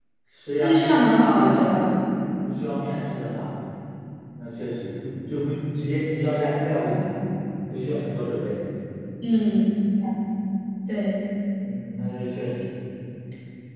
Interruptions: present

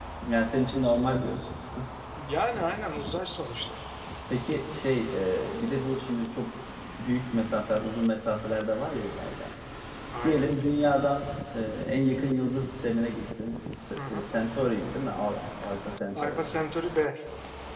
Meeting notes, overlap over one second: none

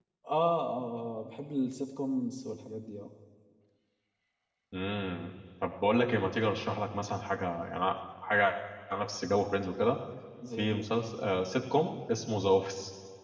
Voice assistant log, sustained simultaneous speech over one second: none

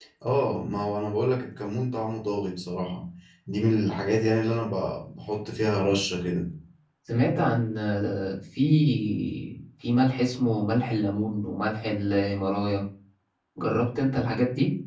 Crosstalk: none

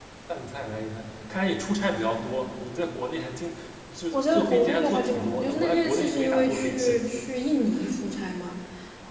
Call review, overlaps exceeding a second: present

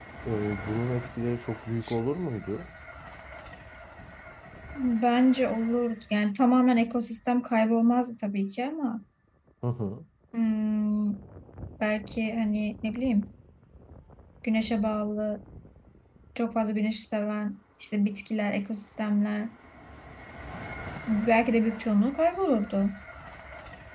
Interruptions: none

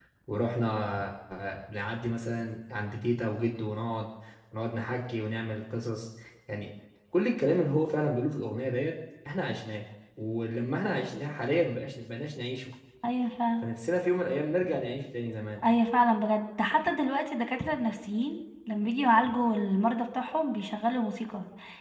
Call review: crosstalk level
none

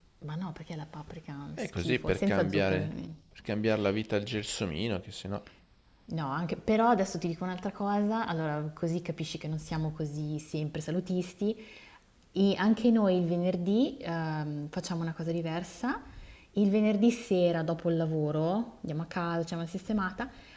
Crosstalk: present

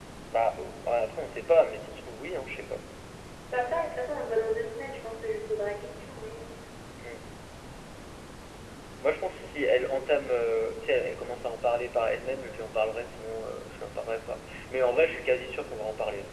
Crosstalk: none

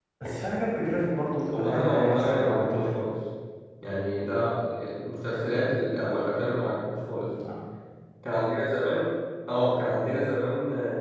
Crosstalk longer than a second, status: present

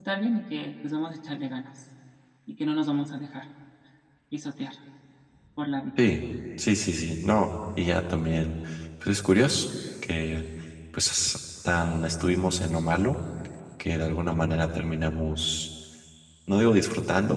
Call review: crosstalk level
none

